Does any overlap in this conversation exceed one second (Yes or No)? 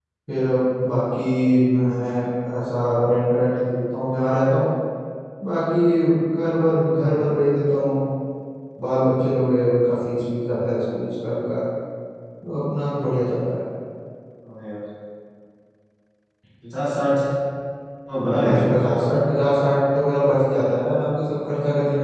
No